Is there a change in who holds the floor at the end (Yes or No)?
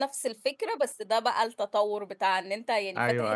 No